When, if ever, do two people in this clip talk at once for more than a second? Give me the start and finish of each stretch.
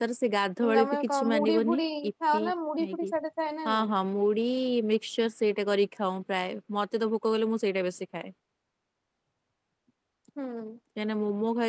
0.8-2.4

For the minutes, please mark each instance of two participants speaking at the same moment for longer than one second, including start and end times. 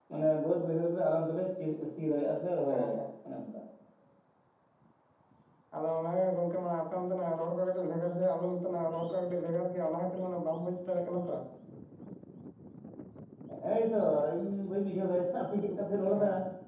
none

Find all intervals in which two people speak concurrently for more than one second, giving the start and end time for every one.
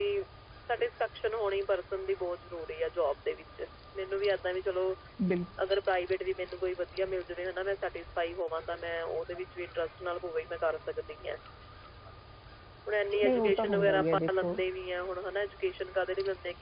13.2-14.6

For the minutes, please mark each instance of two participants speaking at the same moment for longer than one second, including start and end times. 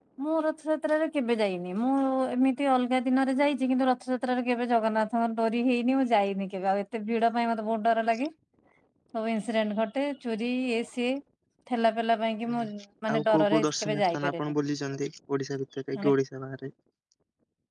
13.1-14.5

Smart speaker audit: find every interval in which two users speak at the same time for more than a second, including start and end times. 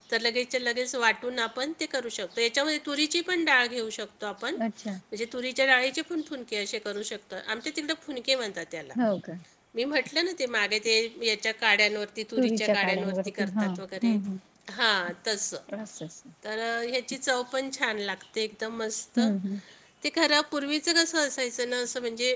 12.4-14.1

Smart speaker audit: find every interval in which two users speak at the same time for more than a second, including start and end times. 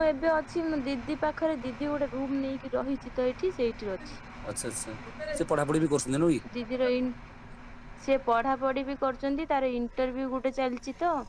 none

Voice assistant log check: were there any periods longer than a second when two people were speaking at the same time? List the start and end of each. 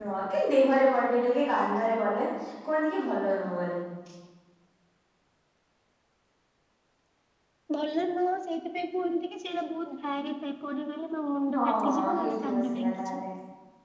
11.6-13.2

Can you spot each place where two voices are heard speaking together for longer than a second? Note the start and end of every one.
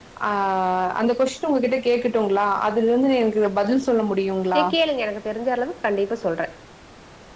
none

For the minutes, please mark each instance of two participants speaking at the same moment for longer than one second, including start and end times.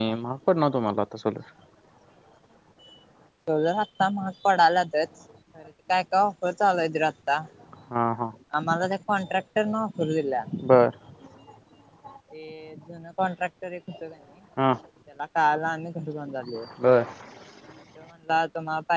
none

